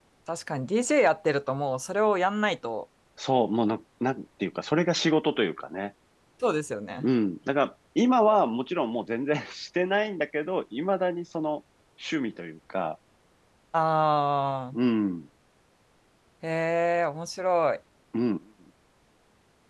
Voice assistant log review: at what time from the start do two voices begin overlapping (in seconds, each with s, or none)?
none